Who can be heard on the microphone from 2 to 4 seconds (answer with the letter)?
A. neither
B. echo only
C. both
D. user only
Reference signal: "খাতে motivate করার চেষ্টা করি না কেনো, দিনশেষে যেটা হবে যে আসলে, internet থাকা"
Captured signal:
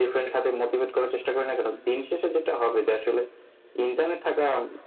B